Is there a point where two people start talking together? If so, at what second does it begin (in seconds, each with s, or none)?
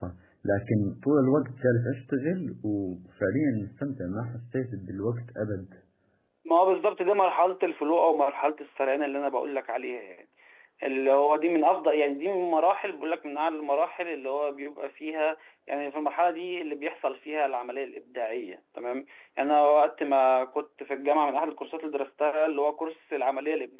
none